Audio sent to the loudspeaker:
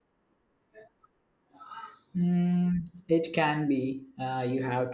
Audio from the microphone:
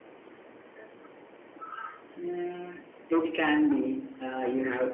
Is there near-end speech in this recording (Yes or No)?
No